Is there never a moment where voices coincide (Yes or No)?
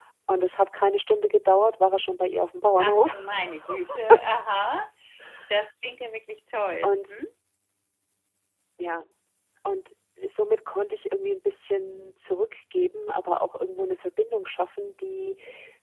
No